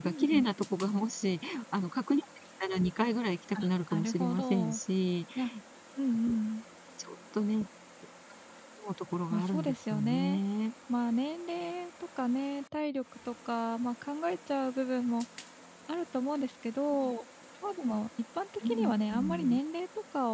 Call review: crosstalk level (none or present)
present